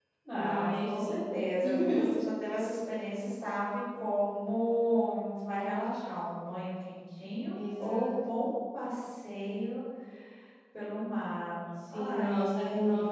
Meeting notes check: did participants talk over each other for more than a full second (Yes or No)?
Yes